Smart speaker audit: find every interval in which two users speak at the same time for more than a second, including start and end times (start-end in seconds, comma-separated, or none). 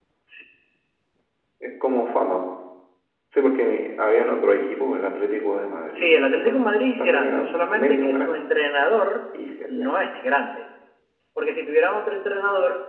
5.9-8.5